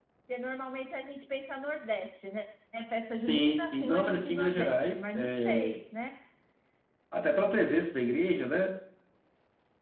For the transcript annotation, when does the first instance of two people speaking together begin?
3.1 s

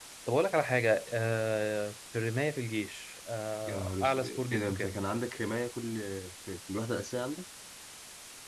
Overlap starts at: 3.7 s

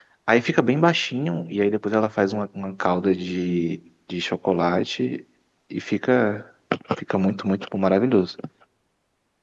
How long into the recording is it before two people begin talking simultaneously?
none

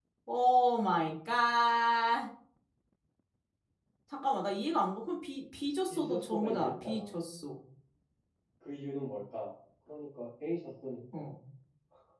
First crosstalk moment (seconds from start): 5.9 s

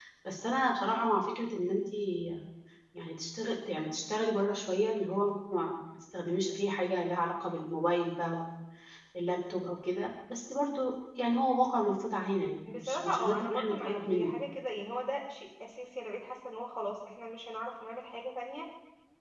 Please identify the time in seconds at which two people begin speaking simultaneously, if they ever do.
12.6 s

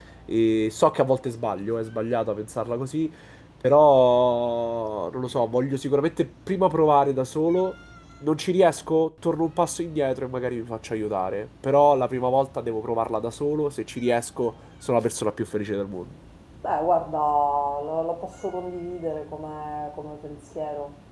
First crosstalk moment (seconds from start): none

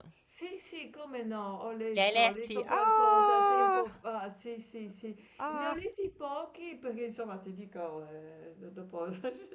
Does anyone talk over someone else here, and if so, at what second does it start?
2.0 s

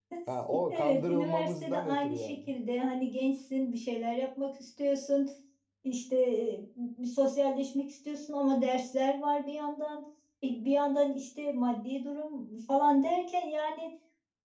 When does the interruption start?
0.7 s

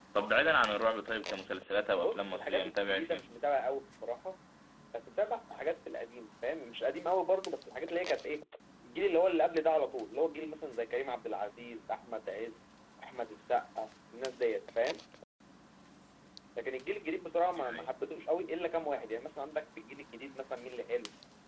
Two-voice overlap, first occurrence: 2.0 s

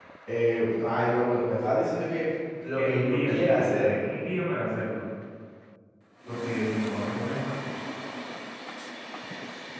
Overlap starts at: 2.7 s

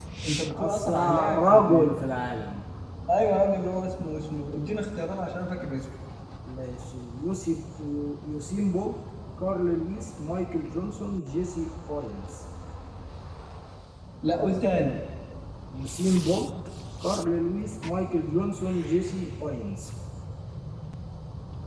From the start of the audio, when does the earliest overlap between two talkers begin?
0.5 s

